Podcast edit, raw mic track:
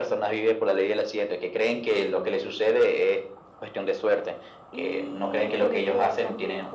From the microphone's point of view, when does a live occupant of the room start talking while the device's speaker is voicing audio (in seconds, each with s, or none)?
4.7 s